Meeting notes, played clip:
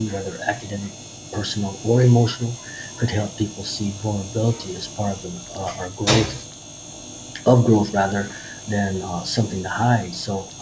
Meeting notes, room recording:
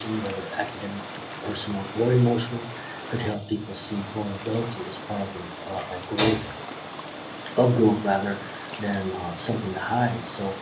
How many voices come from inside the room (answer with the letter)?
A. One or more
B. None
B